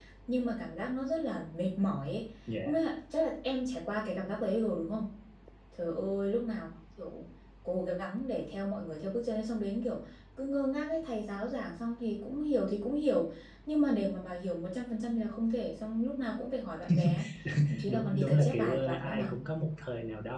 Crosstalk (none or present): present